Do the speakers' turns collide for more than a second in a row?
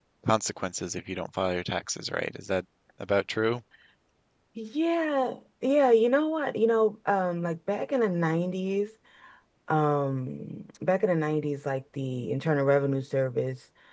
No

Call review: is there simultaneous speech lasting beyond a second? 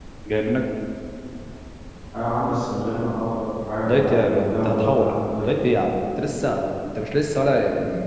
Yes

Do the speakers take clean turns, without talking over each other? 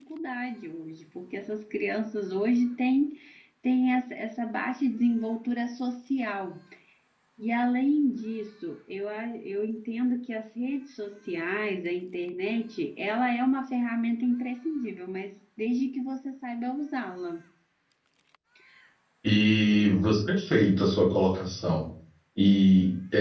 Yes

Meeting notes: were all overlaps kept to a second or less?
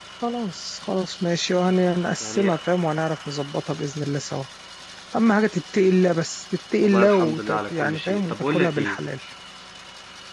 No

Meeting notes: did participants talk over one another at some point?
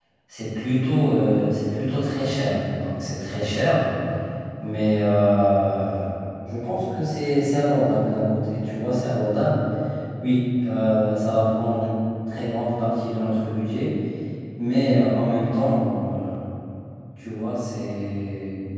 No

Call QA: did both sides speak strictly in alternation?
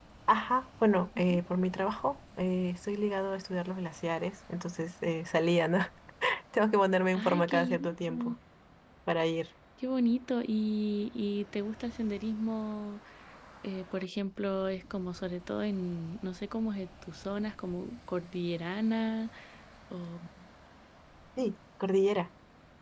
No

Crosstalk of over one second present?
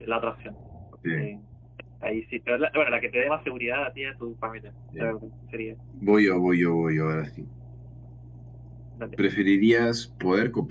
No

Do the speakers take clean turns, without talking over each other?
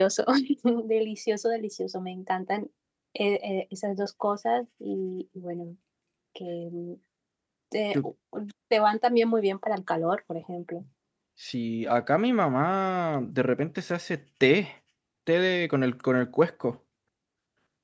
Yes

